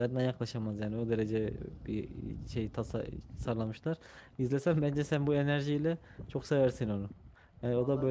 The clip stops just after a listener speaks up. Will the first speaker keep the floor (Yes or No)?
No